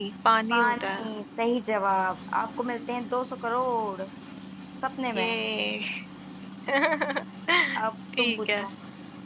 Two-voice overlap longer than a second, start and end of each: none

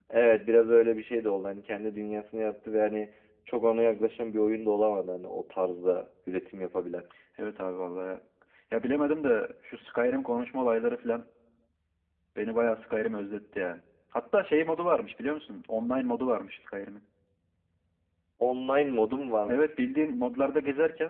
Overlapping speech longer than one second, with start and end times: none

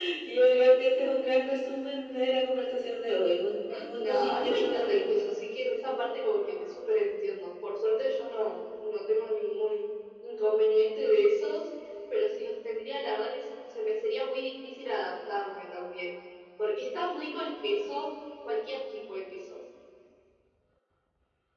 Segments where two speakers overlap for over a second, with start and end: 4.0-5.3

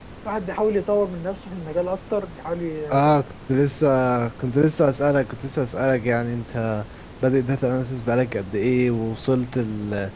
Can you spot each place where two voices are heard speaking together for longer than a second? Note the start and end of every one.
none

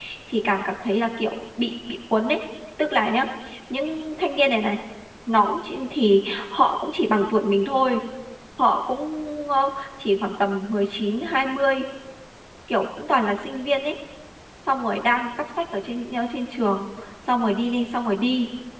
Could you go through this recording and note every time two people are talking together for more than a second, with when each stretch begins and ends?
none

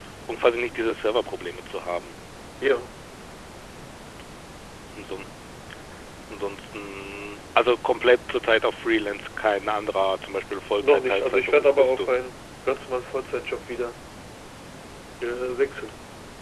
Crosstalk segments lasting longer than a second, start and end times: 10.8-12.1

